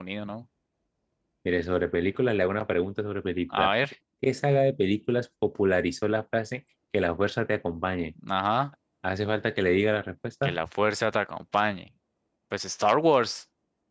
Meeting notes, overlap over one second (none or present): none